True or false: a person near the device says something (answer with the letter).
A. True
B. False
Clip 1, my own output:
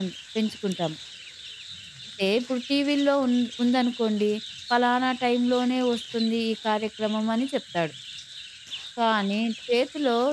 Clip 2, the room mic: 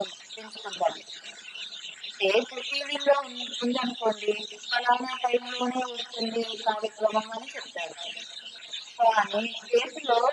B